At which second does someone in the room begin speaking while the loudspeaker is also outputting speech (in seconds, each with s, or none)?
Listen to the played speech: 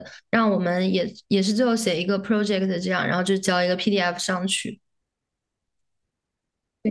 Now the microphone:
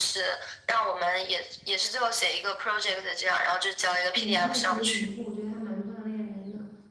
4.1 s